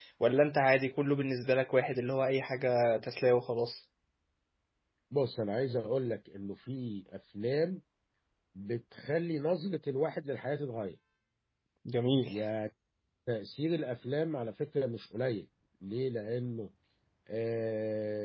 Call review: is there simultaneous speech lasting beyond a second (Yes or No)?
No